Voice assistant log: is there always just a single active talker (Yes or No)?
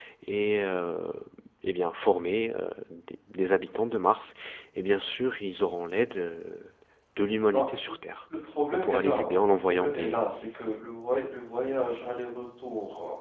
No